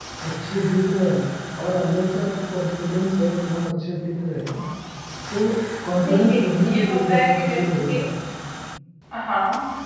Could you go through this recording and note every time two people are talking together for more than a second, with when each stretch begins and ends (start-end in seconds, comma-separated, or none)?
6.1-8.0